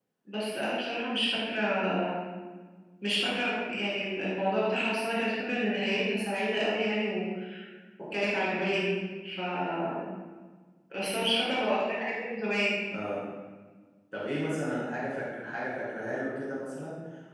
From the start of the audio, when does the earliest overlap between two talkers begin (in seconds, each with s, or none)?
none